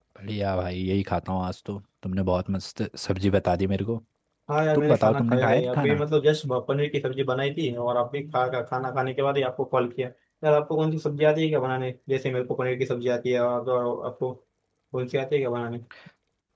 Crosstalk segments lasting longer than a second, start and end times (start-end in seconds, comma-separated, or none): 4.7-6.0